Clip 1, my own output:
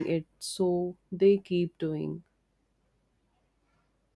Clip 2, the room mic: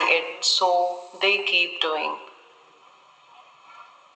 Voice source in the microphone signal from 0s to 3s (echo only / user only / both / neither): echo only